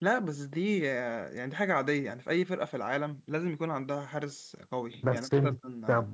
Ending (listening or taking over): taking over